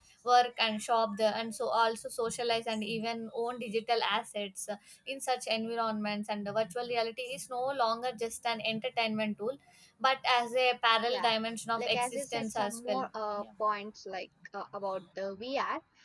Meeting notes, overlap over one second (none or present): present